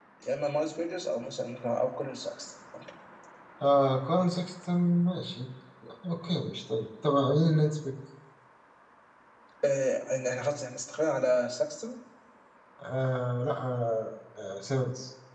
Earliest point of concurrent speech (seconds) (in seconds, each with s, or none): none